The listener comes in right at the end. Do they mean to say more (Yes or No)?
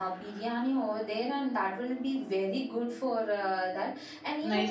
Yes